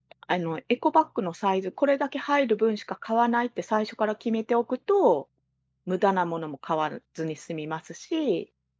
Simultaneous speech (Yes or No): No